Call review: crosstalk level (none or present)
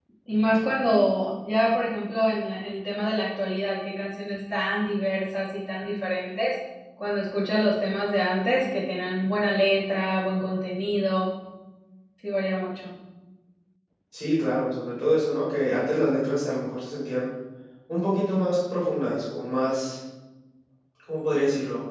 none